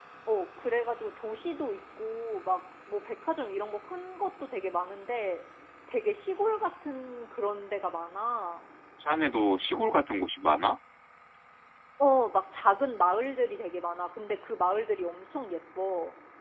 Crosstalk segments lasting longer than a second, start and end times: none

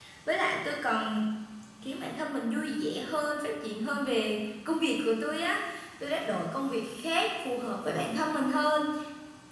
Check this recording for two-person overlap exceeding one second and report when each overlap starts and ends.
none

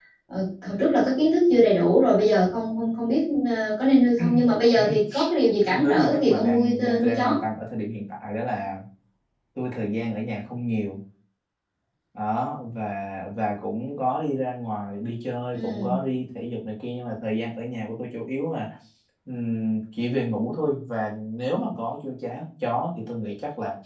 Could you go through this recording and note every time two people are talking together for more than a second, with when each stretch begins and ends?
5.7-7.3

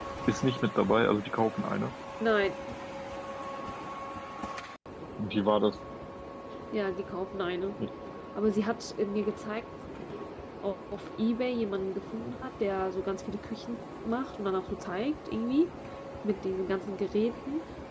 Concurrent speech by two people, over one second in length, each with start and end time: none

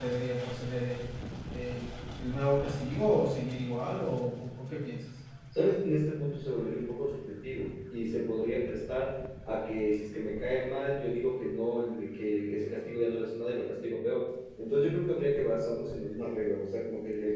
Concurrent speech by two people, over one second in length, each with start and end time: none

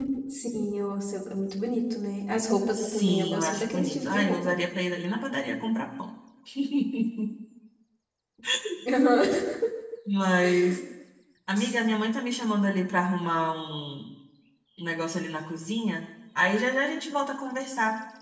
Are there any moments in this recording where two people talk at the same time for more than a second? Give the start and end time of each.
2.8-4.4

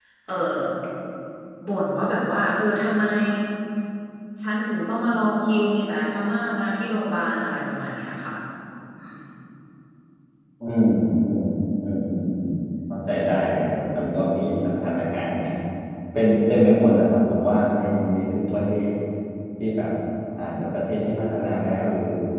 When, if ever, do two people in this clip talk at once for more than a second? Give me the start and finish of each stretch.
none

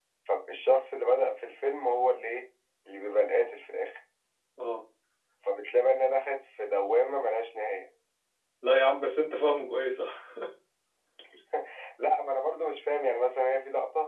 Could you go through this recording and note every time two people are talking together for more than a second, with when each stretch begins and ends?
none

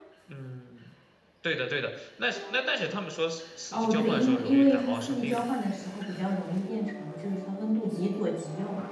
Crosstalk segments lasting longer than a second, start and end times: 3.7-5.5

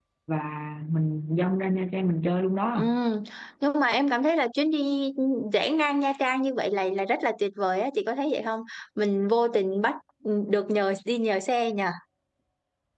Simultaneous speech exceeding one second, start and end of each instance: none

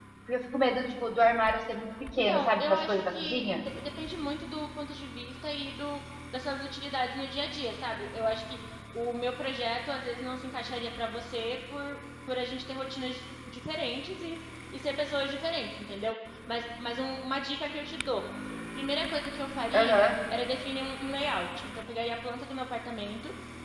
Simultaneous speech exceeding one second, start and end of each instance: 2.2-3.6

